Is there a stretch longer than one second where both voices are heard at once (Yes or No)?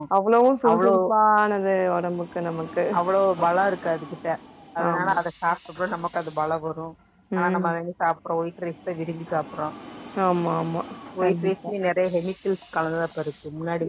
No